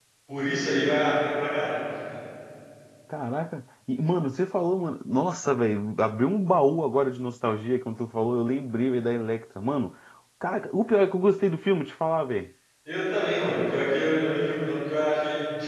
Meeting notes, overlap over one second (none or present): none